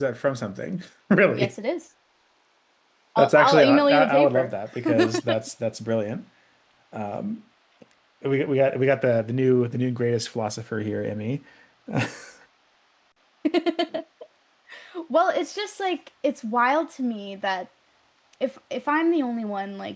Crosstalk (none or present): present